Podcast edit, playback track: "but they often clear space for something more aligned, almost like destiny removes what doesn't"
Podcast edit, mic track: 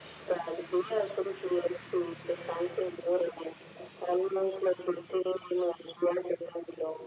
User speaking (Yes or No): No